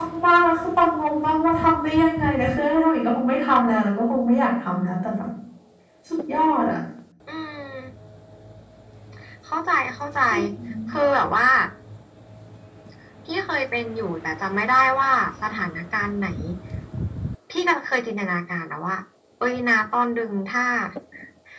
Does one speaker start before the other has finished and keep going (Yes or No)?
No